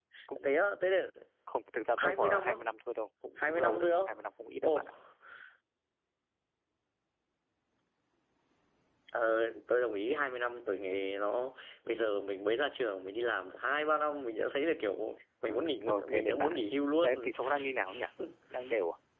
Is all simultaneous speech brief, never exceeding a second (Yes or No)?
No